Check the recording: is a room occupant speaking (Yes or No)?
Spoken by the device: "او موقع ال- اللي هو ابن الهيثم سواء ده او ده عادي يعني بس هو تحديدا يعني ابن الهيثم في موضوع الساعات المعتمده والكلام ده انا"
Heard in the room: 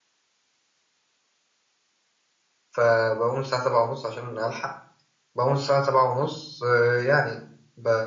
Yes